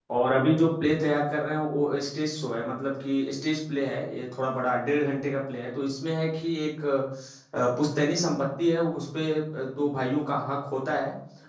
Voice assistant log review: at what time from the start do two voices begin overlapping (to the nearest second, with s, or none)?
none